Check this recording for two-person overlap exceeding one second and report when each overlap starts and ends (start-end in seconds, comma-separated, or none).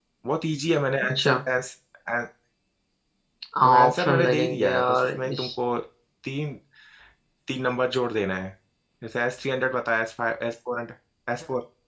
3.6-5.5